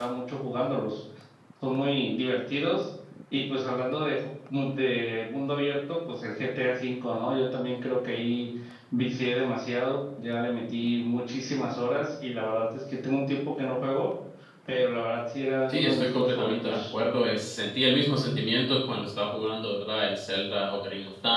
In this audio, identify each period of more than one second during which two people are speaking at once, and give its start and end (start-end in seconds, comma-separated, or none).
15.7-16.9